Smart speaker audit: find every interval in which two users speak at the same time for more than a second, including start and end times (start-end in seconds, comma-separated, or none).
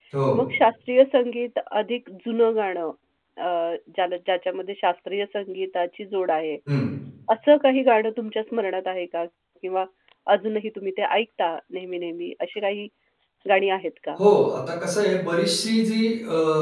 none